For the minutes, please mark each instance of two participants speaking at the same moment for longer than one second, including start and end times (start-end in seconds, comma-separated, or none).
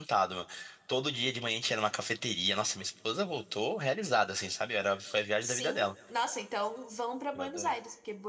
none